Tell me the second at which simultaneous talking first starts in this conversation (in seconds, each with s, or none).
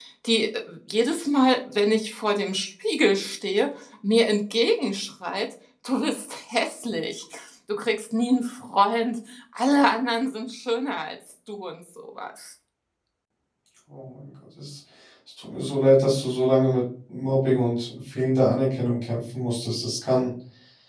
none